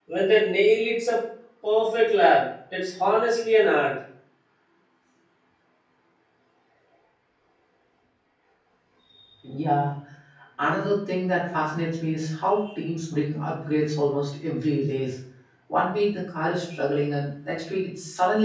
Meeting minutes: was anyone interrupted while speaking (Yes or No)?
No